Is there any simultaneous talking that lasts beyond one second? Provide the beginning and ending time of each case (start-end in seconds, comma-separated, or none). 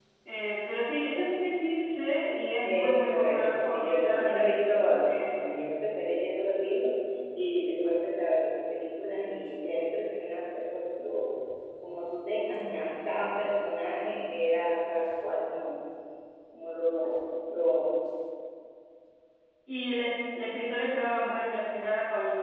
2.6-5.4